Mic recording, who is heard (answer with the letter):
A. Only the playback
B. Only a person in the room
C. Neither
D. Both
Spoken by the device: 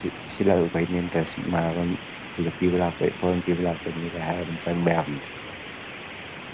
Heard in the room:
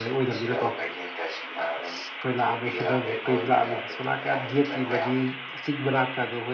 D